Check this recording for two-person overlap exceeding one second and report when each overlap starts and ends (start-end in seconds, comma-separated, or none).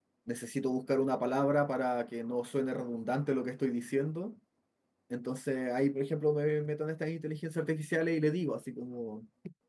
none